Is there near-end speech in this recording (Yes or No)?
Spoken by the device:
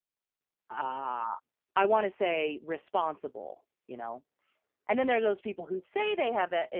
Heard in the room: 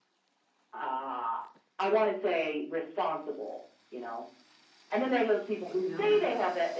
Yes